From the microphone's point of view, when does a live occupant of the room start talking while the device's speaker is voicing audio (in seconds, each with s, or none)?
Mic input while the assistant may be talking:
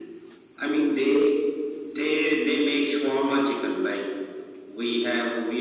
none